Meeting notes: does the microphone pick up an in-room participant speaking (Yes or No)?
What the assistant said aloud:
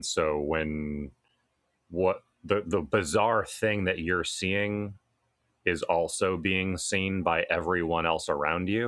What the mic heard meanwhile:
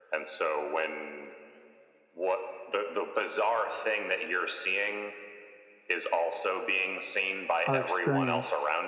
Yes